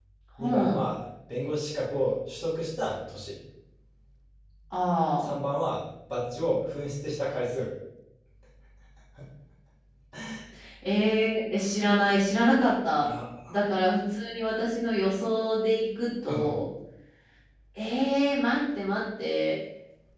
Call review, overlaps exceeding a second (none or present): none